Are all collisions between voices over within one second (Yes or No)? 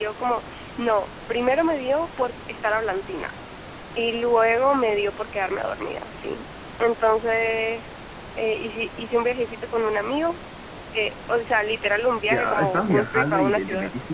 No